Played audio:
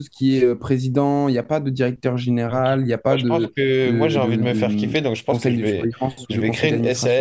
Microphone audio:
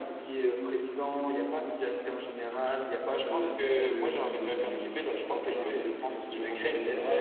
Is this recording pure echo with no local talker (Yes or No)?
No